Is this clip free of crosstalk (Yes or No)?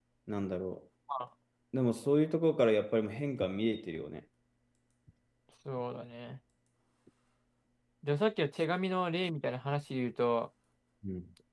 Yes